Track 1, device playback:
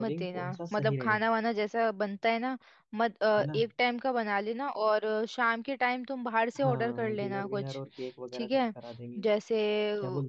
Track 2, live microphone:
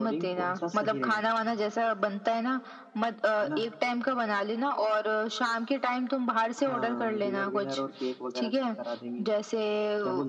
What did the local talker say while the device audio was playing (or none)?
none